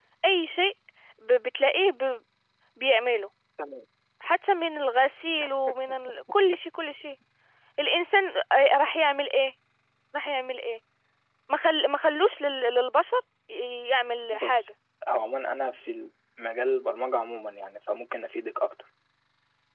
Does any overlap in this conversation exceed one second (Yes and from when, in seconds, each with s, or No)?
No